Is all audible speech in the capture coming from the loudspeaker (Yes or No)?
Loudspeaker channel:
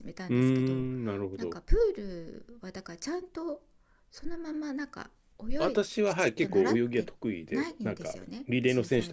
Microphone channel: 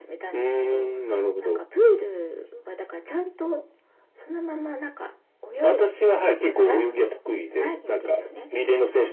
Yes